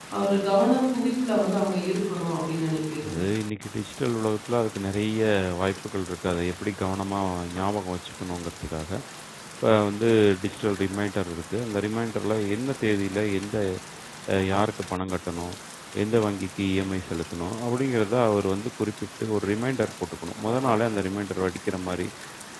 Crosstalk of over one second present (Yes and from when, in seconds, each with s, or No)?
No